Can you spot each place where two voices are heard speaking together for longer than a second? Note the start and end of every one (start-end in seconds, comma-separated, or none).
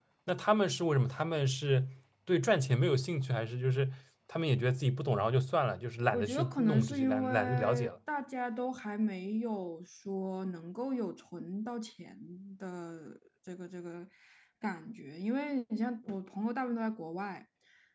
6.1-7.9